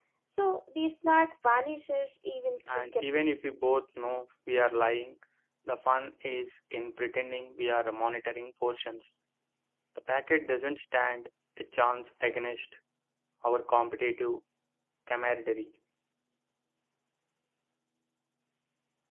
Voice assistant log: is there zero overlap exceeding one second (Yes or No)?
Yes